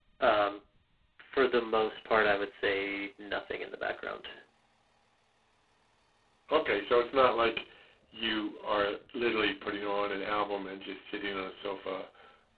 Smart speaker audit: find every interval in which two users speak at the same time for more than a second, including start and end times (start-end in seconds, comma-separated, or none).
none